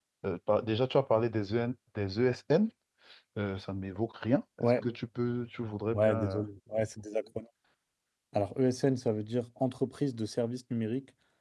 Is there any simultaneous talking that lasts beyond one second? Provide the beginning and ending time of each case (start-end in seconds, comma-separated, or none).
none